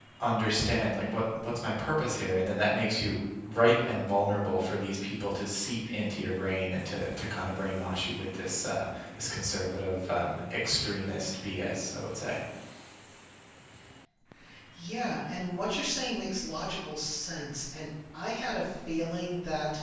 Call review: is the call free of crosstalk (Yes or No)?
Yes